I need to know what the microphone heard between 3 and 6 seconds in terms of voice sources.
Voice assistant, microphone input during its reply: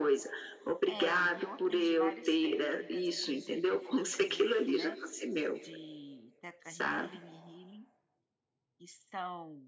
both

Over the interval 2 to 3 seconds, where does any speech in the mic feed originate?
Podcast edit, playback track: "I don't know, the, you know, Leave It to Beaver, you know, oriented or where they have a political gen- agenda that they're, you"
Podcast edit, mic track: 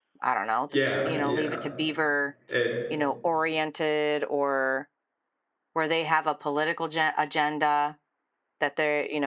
both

